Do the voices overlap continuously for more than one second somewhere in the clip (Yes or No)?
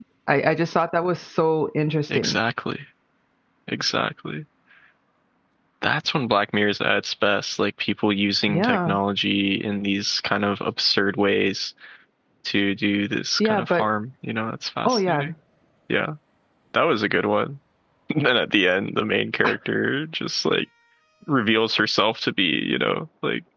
No